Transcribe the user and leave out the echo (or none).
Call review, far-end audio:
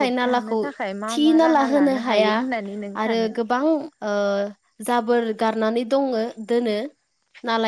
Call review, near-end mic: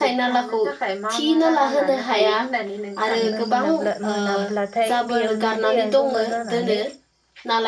थांनो मोनाब्ला मोनाब्लाथाय बेयावनो दैया जमा जाना। नानै